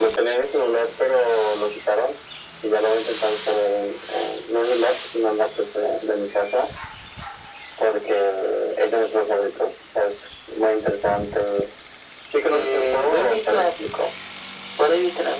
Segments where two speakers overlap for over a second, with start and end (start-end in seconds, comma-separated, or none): 12.4-13.7